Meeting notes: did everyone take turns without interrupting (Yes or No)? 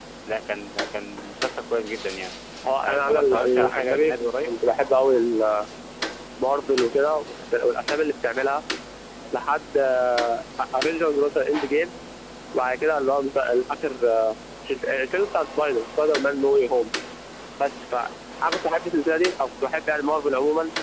No